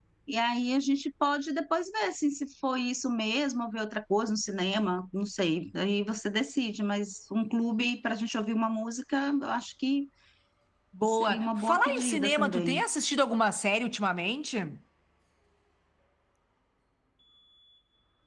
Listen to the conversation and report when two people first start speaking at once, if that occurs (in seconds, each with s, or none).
11.0 s